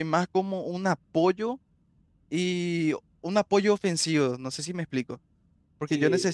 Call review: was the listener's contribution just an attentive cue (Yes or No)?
Yes